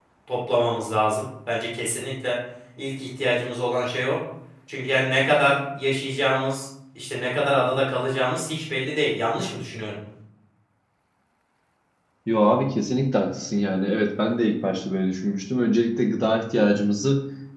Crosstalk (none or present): none